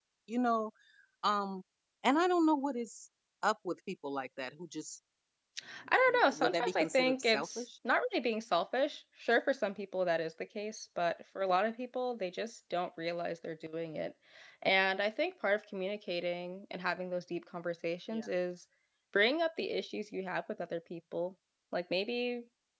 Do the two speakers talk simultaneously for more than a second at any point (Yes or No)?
Yes